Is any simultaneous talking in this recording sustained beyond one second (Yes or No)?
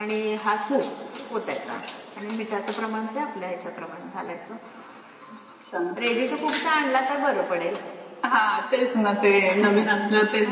No